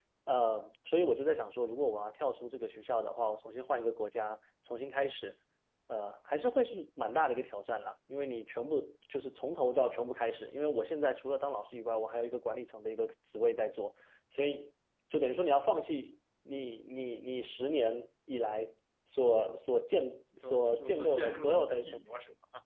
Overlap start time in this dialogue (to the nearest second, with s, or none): 20 s